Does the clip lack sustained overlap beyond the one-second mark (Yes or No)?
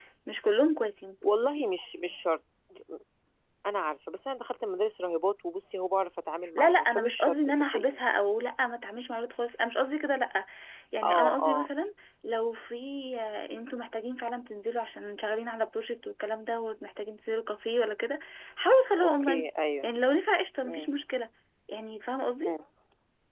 No